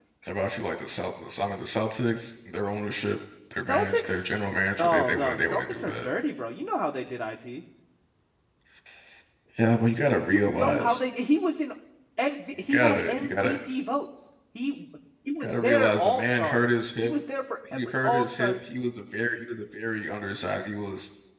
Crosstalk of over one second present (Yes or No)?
Yes